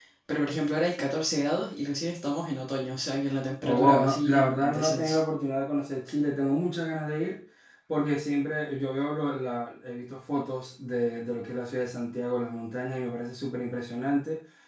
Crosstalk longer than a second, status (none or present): present